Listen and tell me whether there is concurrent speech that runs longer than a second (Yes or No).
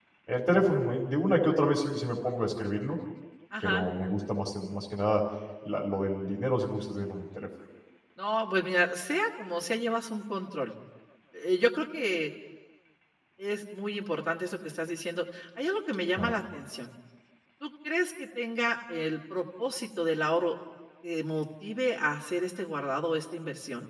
No